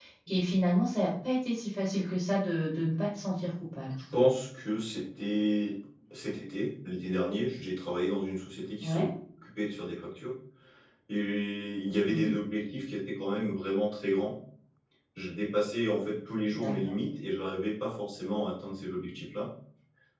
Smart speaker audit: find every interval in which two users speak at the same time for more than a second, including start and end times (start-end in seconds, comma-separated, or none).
none